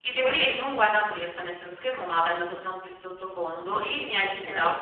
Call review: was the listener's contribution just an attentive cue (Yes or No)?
Yes